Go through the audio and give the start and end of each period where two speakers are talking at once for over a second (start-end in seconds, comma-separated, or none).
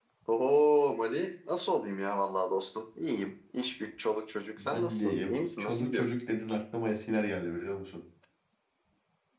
4.6-6.0